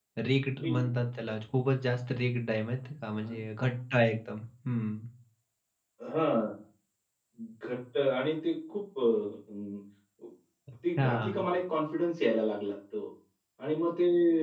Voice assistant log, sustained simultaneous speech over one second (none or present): none